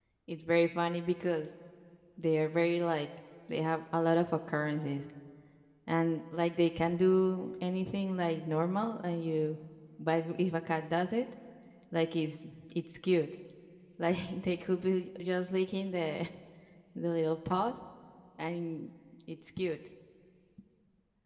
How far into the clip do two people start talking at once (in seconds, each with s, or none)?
none